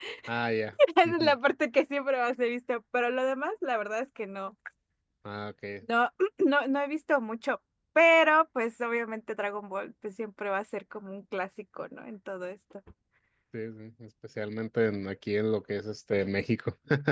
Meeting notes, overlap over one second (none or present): none